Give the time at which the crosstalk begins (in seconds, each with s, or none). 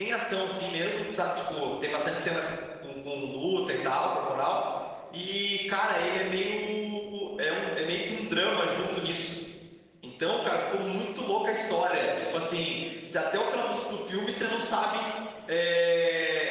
none